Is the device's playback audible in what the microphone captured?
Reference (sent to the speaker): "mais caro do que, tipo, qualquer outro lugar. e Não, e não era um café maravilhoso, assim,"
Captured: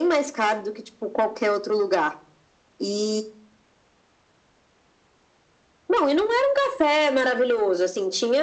Yes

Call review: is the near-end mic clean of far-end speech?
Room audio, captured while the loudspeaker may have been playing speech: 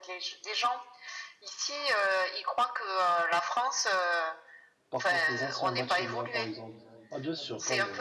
No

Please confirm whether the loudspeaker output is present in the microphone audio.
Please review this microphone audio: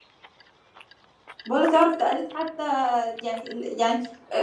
No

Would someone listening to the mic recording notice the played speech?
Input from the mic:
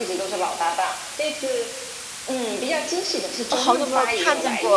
Yes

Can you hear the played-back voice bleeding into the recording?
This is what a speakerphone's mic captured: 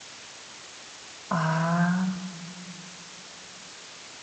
No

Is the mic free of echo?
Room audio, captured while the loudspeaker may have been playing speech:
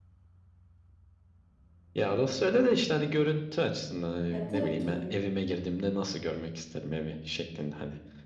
No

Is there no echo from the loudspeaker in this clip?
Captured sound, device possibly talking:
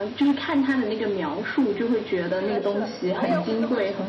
No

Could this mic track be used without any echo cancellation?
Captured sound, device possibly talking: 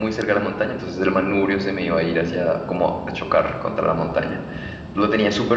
Yes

